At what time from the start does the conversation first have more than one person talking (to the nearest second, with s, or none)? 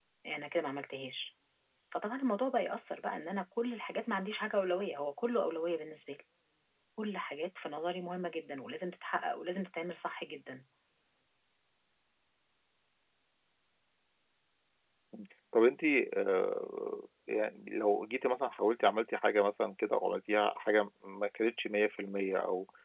none